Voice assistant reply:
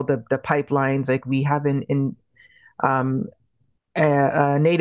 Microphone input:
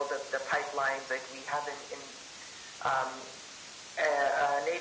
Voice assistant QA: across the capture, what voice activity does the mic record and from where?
echo only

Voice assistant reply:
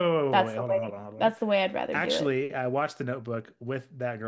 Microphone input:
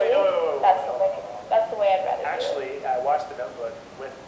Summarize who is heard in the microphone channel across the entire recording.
echo only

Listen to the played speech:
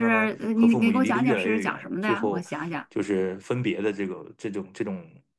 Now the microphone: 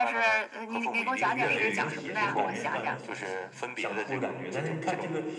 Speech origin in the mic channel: both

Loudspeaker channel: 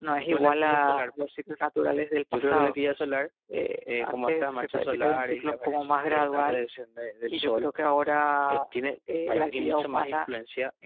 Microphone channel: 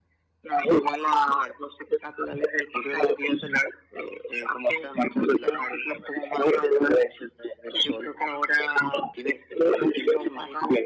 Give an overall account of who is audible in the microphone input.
echo only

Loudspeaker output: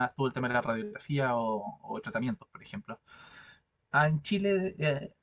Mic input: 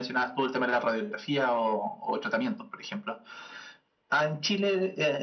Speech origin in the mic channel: echo only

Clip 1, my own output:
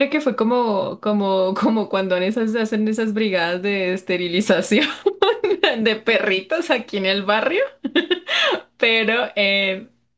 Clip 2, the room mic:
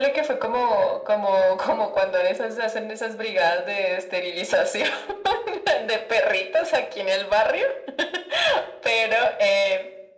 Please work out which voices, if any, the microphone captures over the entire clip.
echo only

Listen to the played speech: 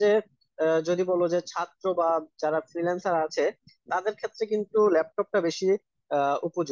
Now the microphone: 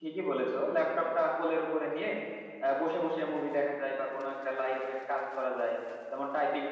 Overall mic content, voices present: user only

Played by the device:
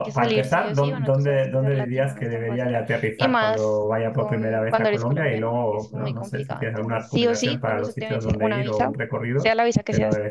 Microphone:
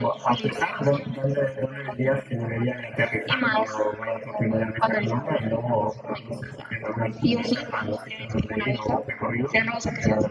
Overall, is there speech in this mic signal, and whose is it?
echo only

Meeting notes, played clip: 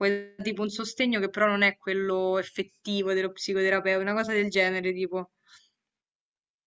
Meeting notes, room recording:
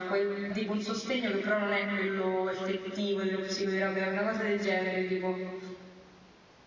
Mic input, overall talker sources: echo only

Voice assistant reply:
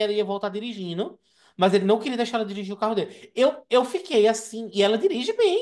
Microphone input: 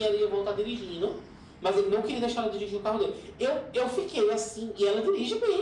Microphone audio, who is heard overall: echo only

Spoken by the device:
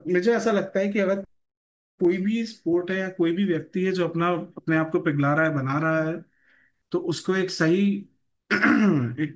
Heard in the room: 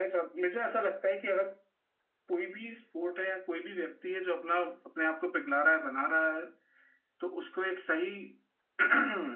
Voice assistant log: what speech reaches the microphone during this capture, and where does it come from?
echo only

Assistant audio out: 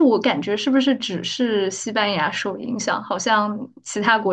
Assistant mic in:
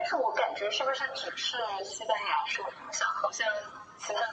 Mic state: echo only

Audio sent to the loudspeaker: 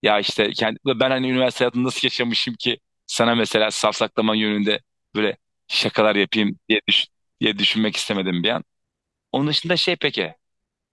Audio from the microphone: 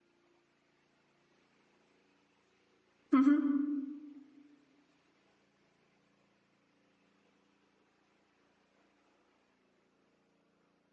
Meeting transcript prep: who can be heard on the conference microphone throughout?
user only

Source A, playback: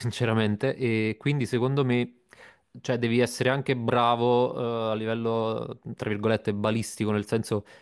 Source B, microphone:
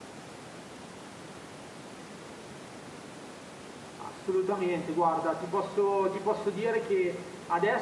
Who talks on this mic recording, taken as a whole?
user only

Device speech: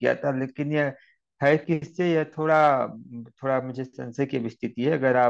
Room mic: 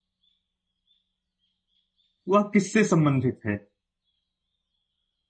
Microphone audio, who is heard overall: user only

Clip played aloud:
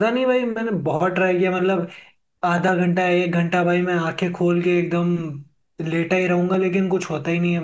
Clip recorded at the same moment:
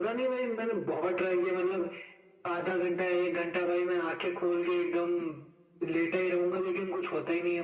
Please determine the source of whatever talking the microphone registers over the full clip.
echo only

